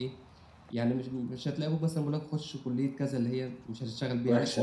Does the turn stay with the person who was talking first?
No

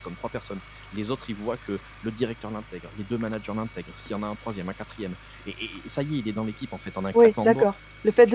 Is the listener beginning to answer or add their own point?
Yes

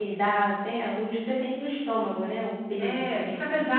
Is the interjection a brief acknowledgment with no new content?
No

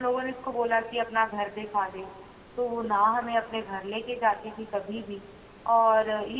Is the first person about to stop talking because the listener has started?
No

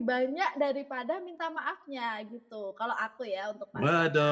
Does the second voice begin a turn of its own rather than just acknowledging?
Yes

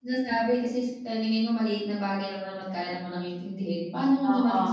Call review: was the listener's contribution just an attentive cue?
Yes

